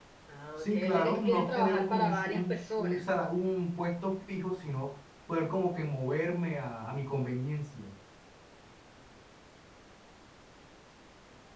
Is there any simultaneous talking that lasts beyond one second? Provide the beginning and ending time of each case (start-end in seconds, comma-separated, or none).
0.6-3.0